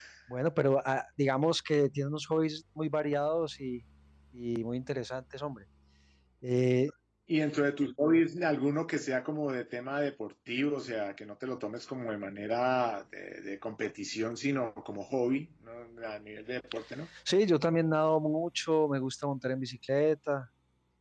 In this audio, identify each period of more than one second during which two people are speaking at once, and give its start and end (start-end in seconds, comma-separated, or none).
none